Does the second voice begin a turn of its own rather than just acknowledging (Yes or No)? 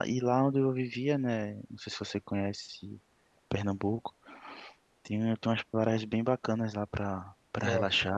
Yes